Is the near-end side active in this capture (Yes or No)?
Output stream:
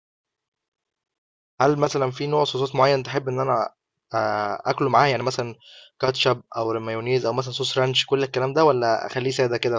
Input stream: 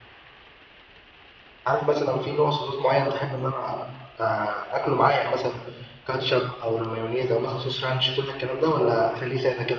No